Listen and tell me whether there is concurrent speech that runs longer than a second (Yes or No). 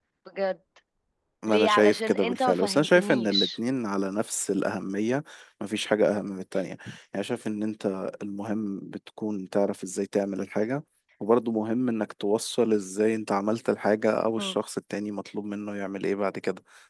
Yes